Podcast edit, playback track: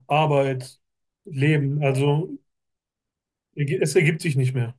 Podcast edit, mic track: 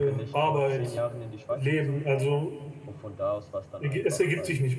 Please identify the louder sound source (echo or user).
echo